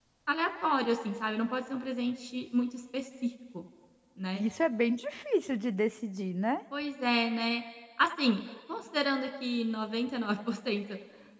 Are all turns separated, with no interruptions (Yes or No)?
Yes